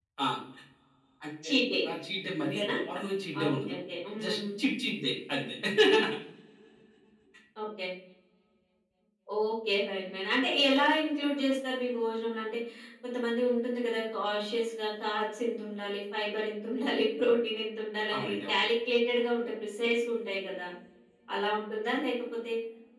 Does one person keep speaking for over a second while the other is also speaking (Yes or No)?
No